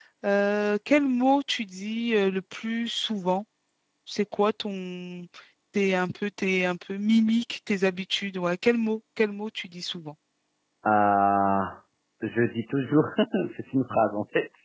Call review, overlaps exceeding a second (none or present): none